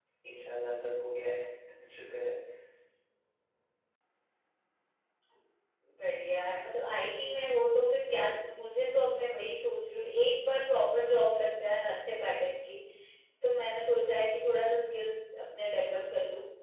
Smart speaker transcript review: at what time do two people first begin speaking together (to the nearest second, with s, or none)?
none